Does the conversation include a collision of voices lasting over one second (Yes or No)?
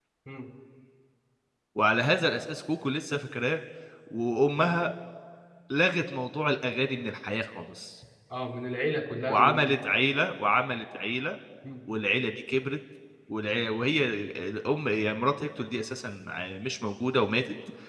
No